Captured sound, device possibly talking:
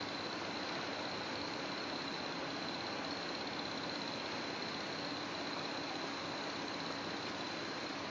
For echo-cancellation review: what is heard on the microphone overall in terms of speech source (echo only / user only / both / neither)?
neither